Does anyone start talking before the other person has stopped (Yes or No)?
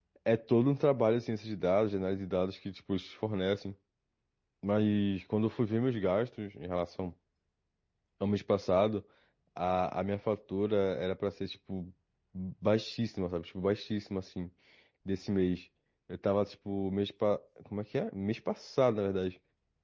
No